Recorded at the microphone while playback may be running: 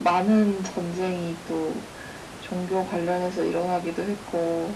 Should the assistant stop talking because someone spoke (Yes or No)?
No